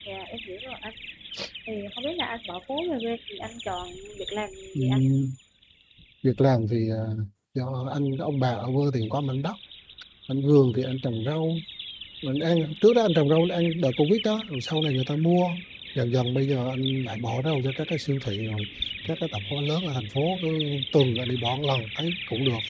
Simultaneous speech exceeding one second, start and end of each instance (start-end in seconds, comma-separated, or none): none